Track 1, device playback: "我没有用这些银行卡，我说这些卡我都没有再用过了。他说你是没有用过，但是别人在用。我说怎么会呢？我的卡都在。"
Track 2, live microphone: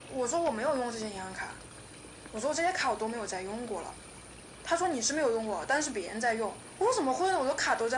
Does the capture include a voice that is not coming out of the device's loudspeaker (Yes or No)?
No